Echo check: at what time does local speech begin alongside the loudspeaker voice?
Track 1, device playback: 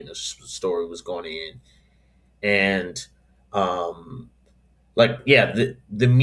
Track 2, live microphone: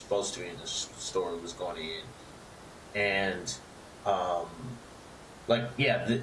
none

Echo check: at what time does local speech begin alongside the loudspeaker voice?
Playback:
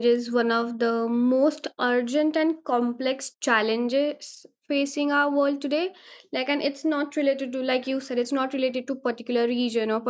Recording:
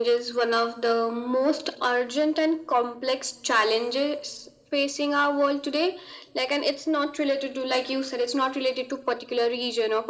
none

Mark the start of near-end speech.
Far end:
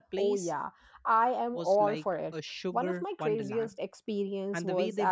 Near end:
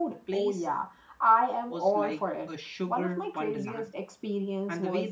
none

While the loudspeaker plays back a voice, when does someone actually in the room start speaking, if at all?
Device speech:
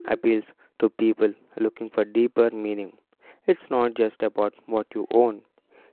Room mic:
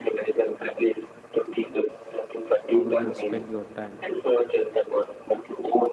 3 s

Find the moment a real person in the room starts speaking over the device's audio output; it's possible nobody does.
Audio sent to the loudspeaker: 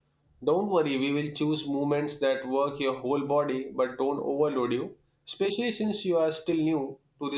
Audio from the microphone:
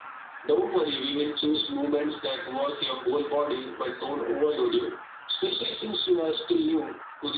none

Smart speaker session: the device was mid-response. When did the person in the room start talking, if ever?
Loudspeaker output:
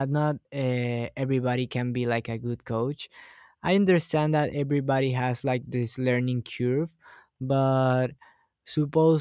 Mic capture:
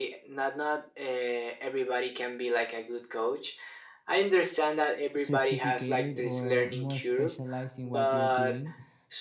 5 s

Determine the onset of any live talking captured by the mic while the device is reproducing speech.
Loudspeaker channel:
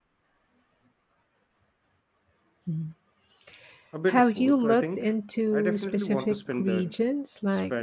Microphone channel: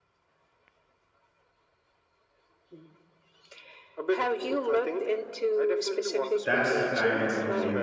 6 s

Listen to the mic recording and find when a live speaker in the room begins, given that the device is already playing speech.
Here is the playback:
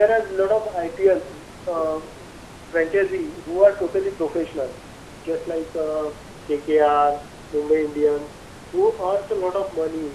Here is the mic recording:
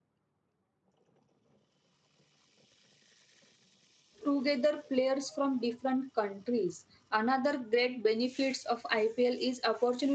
4 s

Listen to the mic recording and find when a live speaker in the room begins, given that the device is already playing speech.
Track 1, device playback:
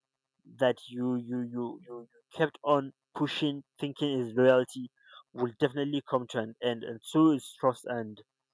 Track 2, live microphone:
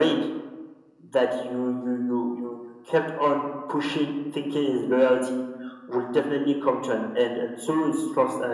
none

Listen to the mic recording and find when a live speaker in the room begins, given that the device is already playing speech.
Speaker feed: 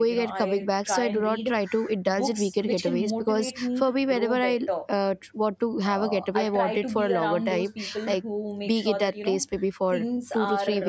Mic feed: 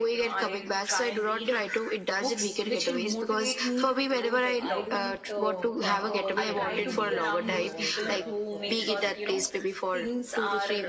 5 s

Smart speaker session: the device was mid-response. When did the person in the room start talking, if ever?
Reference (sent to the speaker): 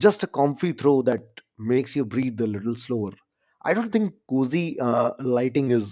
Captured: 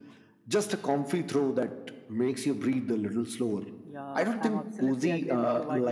4 s

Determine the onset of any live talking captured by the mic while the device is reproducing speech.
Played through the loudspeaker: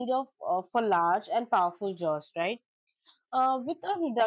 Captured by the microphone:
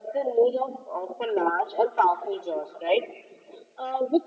none

